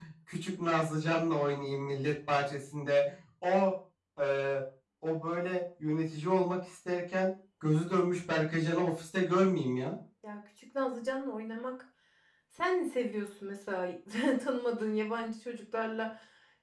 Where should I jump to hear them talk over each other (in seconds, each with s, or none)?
none